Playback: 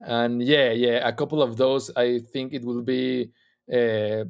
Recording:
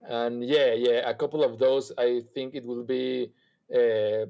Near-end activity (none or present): none